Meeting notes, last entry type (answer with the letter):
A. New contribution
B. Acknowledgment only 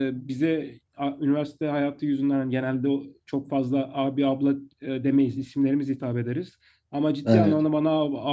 B